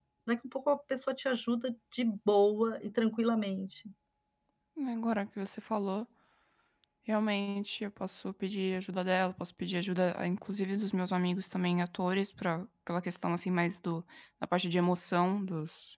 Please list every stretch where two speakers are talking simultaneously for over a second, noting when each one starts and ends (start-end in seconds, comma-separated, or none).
none